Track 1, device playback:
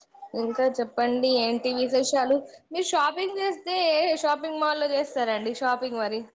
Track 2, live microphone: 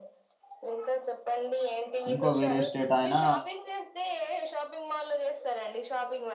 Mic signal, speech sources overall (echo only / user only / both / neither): both